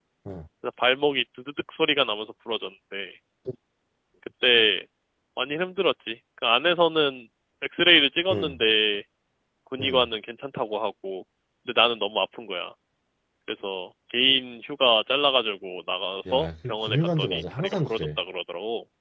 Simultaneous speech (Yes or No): Yes